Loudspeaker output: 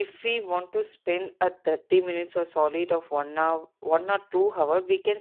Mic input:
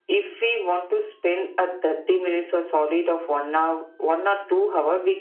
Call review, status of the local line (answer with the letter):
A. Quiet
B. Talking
A